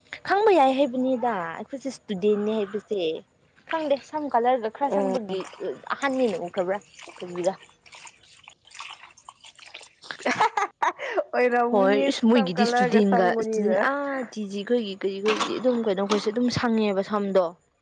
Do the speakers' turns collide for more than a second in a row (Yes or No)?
Yes